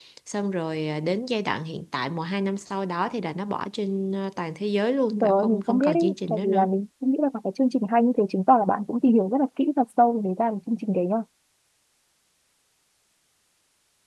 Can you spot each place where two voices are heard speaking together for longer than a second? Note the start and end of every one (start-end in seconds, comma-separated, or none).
5.2-6.7